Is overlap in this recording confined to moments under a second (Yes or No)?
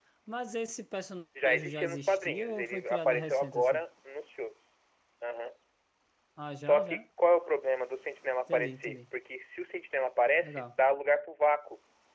No